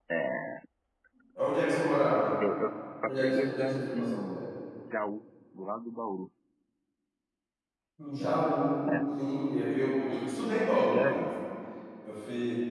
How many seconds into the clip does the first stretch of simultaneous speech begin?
3.0 s

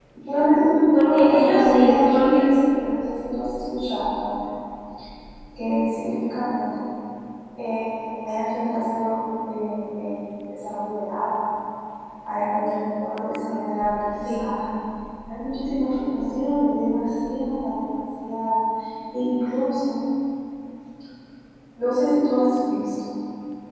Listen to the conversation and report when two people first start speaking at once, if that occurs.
0.9 s

